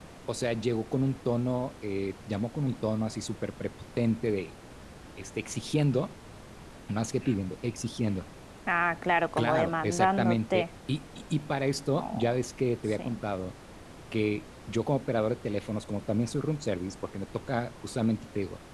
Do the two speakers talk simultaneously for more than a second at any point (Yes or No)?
Yes